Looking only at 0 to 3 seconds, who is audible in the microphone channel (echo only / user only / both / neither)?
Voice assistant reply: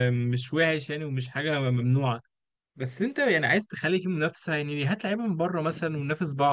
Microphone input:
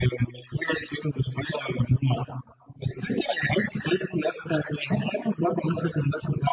echo only